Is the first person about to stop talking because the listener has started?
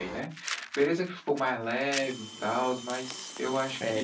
Yes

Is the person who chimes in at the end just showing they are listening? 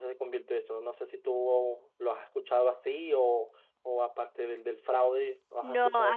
No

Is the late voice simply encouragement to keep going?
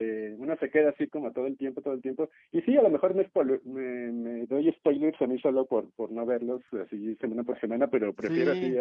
No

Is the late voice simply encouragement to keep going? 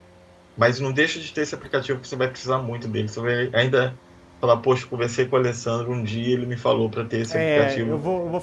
No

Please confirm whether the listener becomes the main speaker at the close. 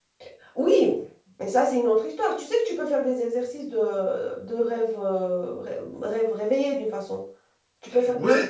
Yes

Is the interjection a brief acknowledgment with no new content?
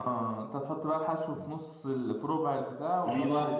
No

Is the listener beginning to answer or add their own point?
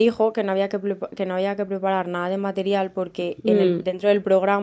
No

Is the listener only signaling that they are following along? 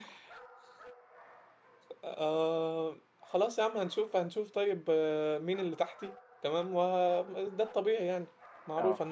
Yes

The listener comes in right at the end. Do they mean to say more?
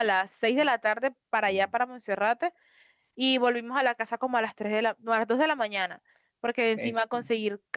No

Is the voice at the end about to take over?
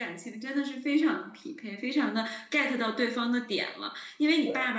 No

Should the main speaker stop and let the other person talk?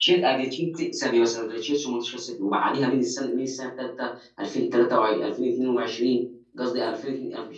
No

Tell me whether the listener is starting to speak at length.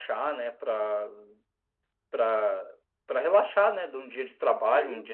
No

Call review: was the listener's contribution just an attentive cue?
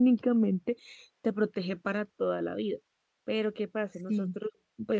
Yes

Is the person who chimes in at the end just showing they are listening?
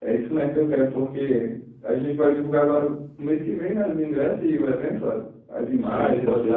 No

